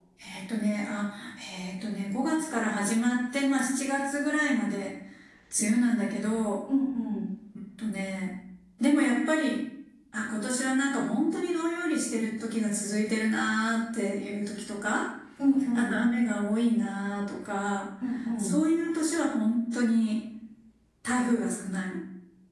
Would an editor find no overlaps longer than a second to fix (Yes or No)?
Yes